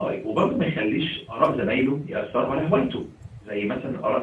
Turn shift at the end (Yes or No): Yes